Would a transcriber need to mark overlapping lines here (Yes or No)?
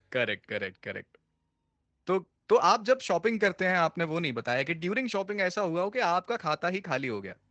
No